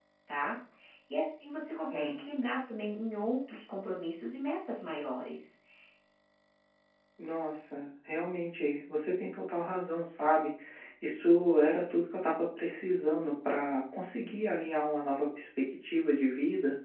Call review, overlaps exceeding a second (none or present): none